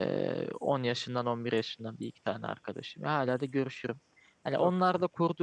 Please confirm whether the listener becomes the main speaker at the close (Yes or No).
No